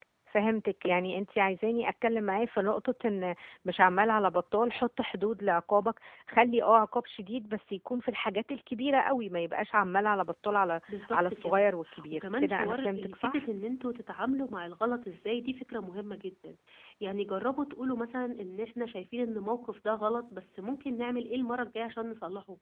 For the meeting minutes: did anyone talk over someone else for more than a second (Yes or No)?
Yes